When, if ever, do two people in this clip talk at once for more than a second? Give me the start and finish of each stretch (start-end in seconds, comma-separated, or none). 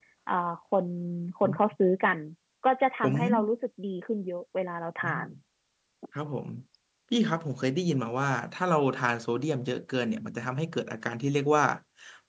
none